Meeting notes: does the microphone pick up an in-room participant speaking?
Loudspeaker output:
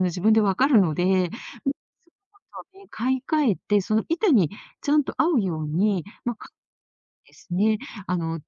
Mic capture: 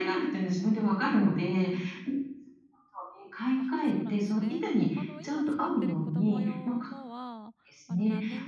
Yes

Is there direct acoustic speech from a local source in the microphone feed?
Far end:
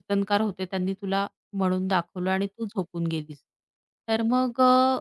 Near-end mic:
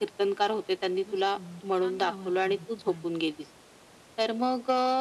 Yes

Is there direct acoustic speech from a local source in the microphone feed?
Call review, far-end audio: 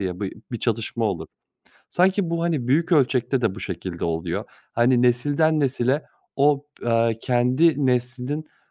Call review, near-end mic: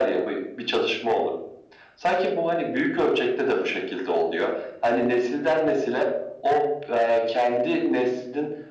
No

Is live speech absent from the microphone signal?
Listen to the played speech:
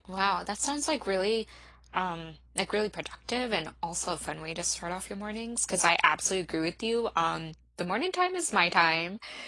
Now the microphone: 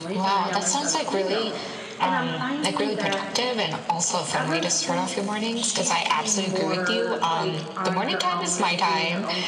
No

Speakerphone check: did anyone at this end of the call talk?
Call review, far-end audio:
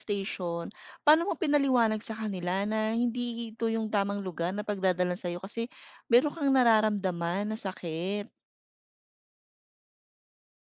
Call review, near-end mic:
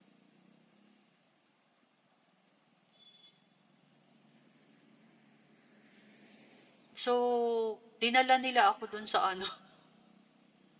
Yes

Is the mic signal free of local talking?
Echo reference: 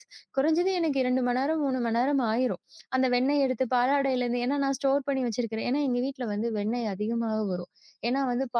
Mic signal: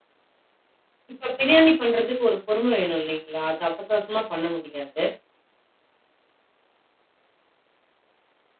No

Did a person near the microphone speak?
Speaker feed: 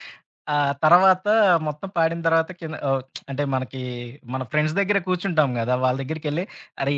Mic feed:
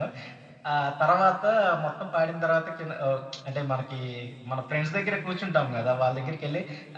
No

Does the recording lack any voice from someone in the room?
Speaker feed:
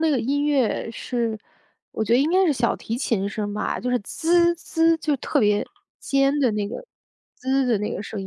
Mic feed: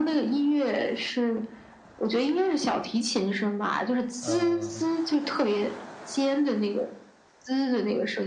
No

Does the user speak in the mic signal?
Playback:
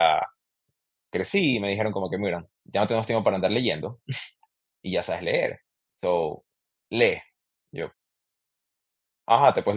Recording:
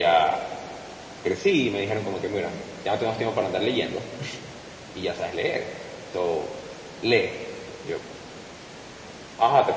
No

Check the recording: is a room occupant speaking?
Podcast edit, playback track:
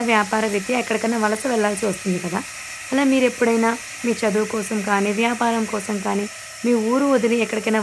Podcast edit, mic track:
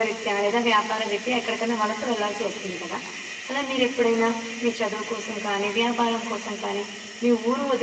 No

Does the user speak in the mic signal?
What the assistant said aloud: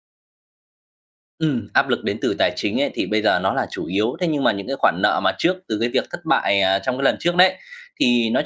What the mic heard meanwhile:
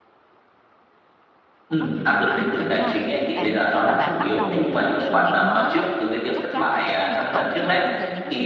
Yes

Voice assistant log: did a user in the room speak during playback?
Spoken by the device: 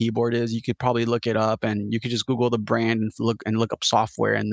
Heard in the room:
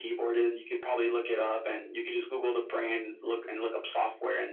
No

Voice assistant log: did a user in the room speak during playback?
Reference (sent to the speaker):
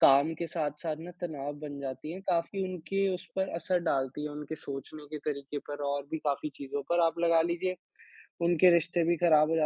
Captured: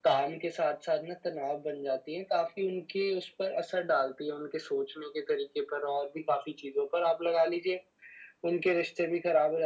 No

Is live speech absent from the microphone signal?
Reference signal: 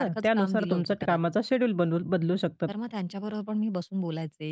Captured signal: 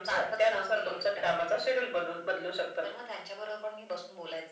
Yes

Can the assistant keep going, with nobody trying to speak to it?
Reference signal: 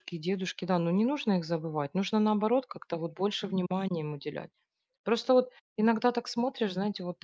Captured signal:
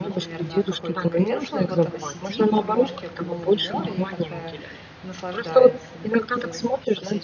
No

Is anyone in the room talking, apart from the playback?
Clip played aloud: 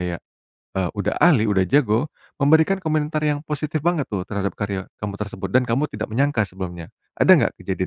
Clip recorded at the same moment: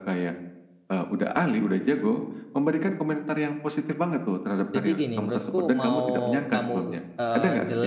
Yes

